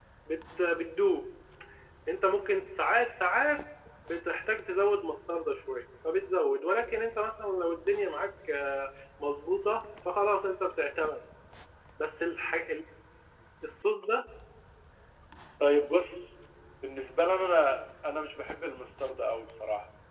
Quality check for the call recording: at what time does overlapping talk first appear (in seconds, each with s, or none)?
none